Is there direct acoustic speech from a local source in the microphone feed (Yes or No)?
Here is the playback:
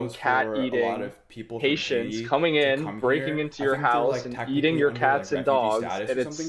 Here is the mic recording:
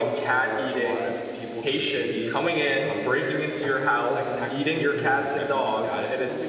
No